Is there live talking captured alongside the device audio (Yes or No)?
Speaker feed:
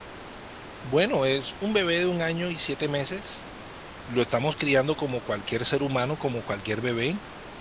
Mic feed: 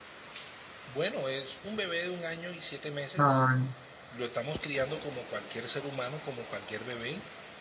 Yes